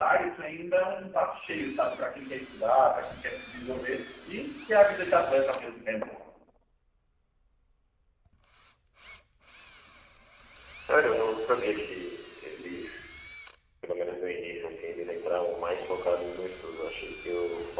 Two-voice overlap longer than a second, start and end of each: none

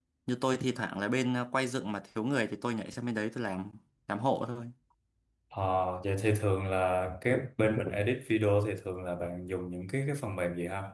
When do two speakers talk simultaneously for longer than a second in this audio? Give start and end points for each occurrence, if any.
none

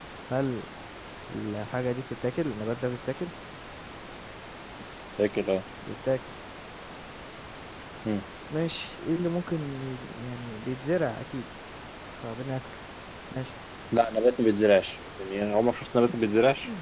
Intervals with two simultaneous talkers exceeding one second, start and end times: none

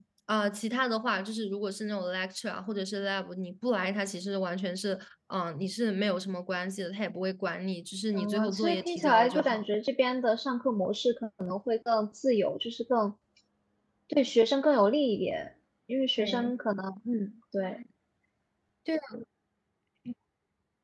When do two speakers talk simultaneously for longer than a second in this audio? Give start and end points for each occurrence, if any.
8.1-9.7

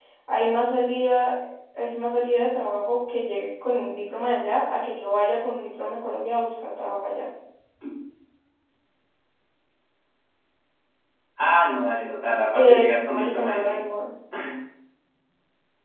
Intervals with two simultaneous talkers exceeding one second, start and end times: 12.5-13.8

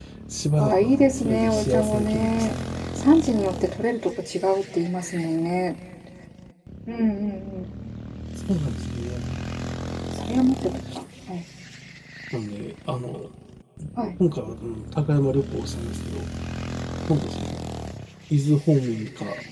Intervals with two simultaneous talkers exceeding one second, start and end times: 0.6-2.5

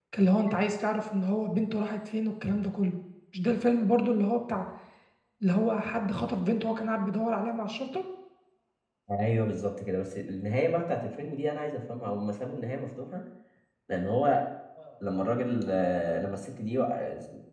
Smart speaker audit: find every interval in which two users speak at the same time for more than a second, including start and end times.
none

